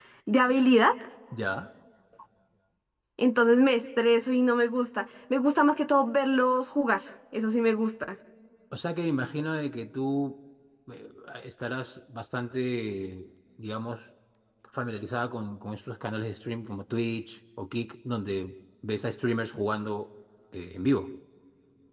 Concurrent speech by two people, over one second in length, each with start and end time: none

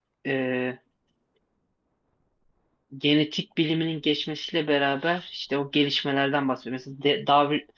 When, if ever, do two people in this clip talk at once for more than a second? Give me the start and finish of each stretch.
none

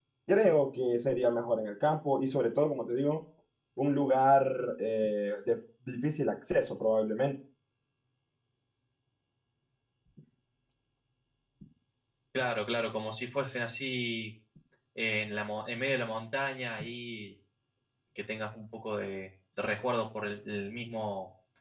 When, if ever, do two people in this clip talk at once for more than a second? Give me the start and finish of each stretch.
none

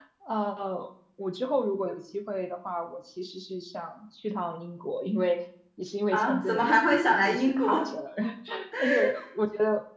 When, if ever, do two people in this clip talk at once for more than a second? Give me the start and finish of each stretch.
6.1-7.8

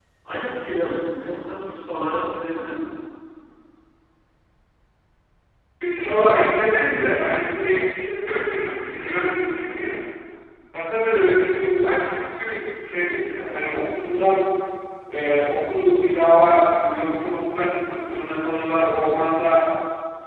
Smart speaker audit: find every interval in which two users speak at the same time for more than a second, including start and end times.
none

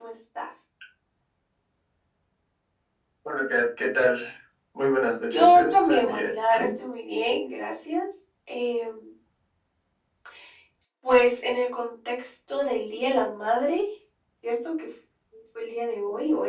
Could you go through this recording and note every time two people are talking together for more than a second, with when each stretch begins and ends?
5.3-6.7

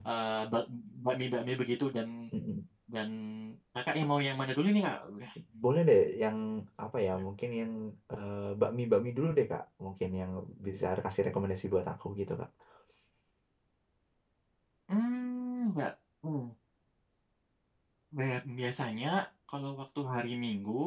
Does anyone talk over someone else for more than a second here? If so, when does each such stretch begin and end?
none

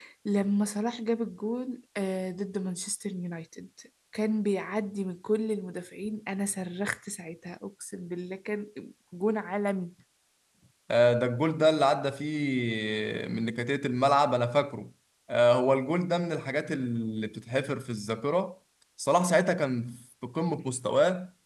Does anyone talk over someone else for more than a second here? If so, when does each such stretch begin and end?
none

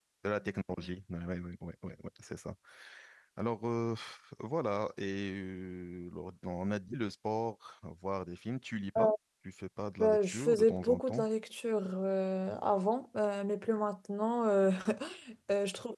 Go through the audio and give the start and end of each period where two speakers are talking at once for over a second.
10.0-11.3

